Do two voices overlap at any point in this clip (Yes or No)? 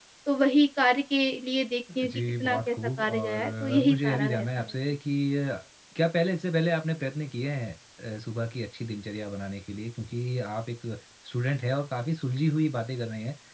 Yes